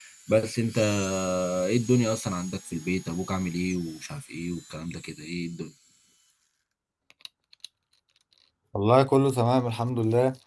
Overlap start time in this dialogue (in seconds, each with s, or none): none